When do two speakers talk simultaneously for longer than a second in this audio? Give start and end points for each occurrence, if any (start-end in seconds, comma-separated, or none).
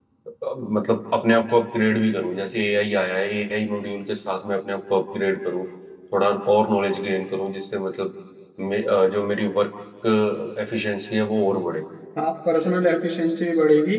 none